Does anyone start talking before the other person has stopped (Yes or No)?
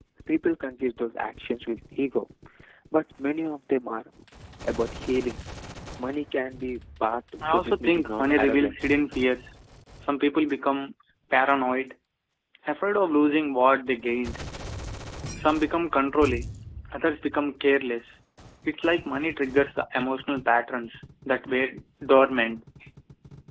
Yes